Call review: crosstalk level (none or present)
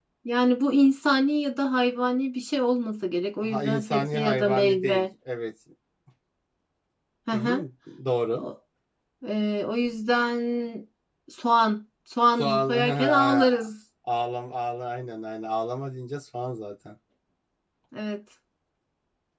present